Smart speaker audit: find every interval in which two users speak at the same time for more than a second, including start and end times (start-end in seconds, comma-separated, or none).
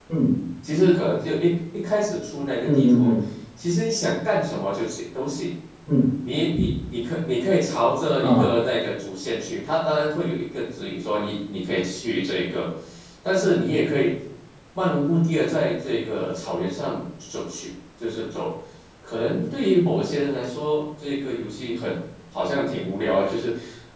none